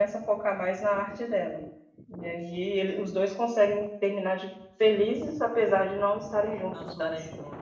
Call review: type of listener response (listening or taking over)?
taking over